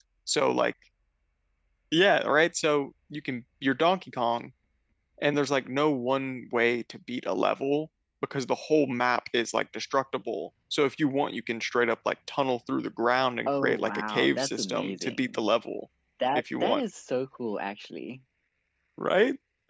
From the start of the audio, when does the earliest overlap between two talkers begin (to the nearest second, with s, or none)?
13 s